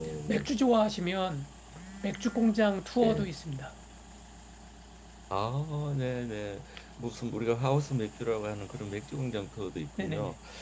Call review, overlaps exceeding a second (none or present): none